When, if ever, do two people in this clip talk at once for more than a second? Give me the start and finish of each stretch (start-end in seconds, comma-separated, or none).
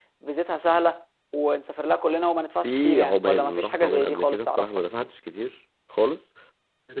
2.6-4.7